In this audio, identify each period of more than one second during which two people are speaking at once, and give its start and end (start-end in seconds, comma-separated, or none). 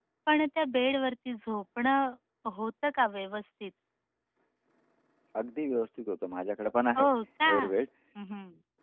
none